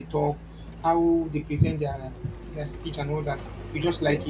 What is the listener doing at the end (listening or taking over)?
listening